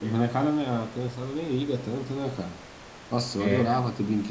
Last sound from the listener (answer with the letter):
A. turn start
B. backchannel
B